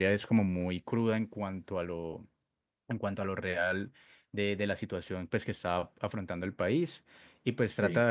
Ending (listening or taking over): listening